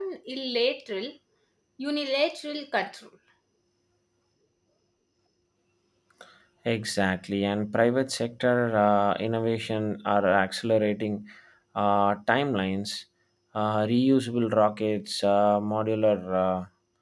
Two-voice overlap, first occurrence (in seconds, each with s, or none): none